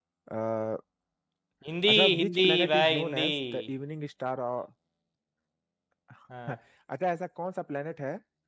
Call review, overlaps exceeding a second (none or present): present